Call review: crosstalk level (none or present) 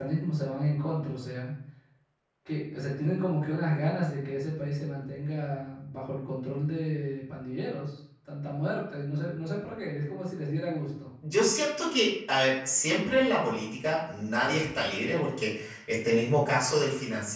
none